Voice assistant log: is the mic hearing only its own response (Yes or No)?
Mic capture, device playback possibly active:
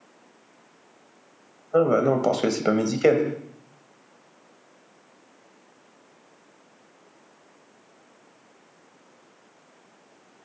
No